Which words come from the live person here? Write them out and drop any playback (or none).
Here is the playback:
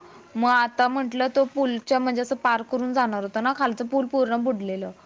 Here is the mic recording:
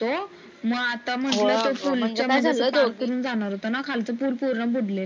होह अगं म्हणजे काय झालं दोघ